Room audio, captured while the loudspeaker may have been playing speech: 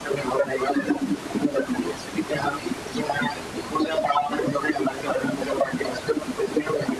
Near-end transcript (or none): none